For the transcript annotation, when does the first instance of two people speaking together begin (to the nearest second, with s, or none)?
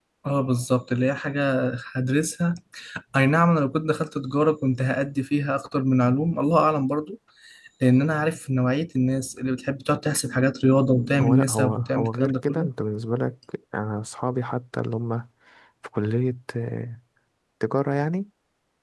11 s